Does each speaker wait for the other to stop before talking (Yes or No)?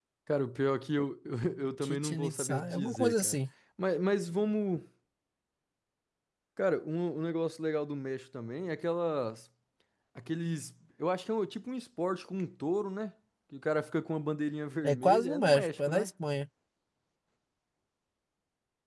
No